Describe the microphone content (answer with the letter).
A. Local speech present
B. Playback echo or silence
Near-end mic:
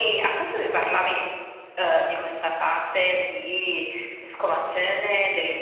B